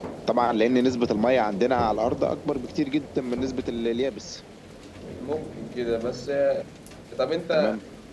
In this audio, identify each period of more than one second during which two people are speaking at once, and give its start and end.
none

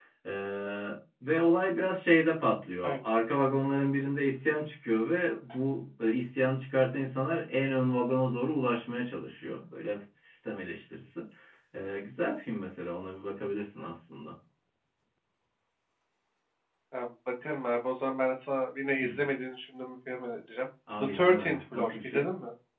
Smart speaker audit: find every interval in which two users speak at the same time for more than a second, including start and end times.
21.0-22.3

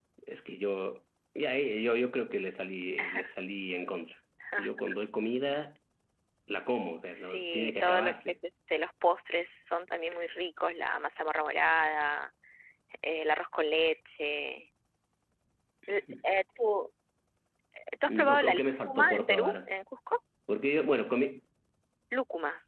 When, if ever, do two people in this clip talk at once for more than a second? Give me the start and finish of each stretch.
7.2-8.4, 18.1-19.7

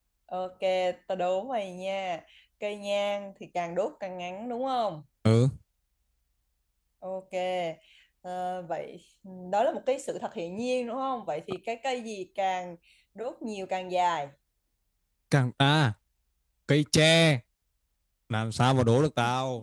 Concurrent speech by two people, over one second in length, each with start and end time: none

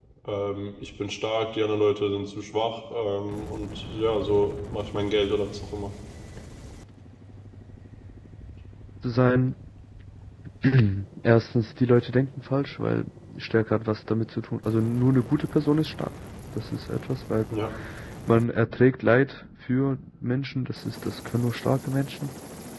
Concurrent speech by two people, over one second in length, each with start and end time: none

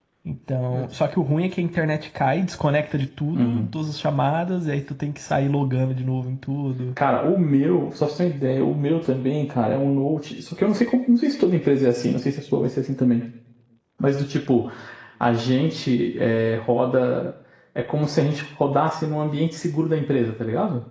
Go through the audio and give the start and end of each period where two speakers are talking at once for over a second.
none

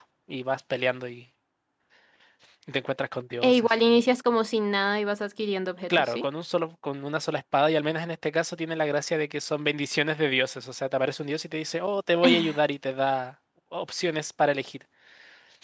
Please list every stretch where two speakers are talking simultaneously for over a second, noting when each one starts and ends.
none

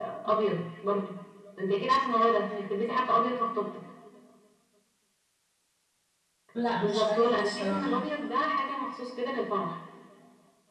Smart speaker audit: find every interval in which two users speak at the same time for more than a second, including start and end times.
6.8-8.0

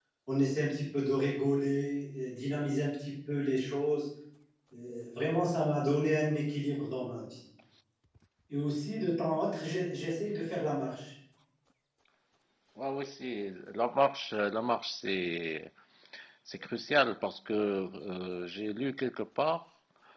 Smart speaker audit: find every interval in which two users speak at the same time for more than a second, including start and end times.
none

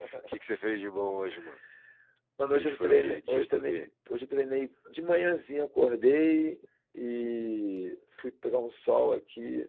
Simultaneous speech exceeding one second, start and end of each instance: 2.5-3.8

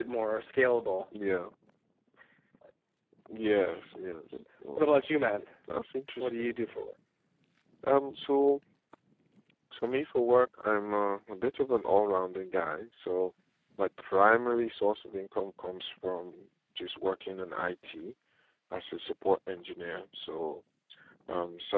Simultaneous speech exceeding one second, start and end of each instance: none

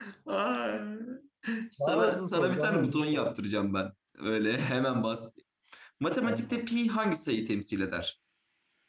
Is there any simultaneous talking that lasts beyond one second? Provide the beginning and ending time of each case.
1.8-3.3

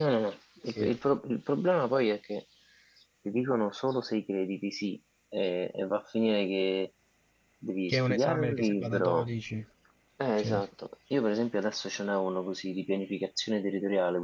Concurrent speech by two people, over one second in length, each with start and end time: 7.9-9.2

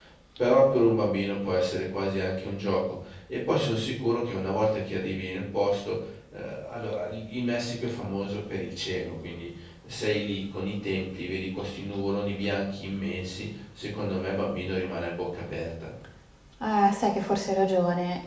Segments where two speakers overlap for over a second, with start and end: none

